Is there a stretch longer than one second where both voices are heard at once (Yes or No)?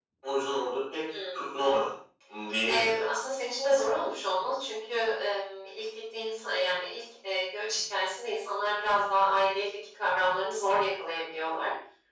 No